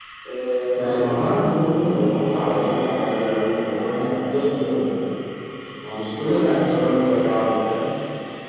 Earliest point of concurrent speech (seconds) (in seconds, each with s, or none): 0.7 s